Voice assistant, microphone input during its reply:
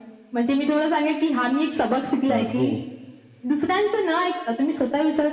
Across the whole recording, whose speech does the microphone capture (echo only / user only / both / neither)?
both